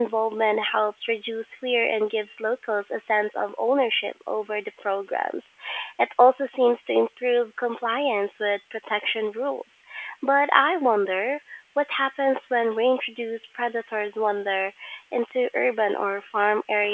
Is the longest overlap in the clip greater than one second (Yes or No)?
No